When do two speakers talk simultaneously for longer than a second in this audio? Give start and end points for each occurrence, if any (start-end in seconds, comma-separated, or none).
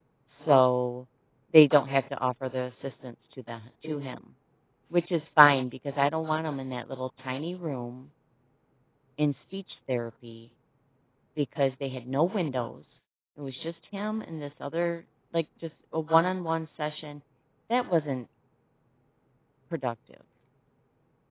none